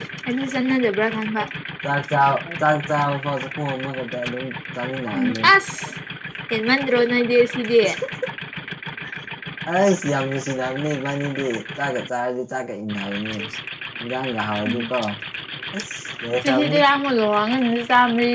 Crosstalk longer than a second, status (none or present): none